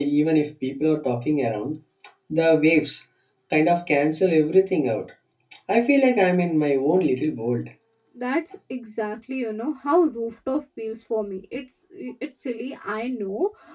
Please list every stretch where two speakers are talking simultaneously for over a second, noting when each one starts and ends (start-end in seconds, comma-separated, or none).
none